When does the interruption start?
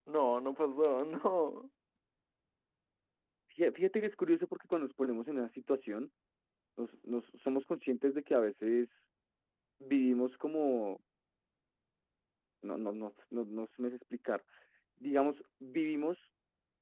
none

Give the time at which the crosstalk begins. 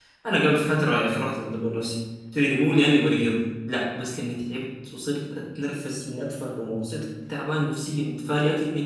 none

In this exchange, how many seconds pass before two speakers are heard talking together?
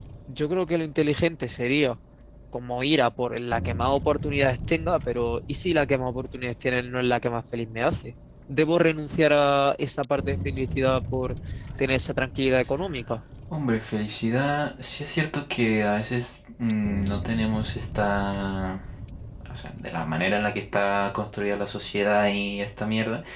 none

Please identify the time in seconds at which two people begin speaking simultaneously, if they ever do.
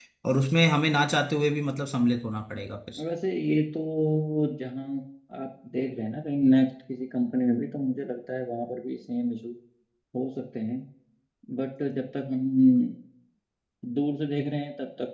none

